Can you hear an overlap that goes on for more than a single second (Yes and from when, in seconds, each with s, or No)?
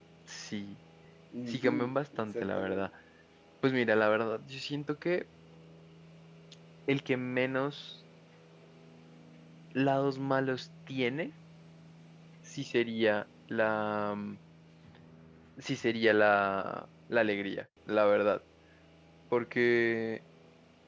Yes, from 1.5 s